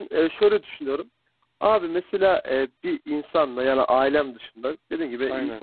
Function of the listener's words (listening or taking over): listening